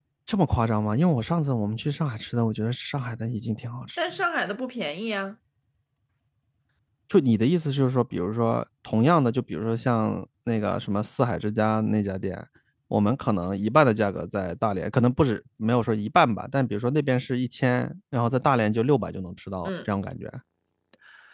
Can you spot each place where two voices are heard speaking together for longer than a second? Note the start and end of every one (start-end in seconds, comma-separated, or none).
none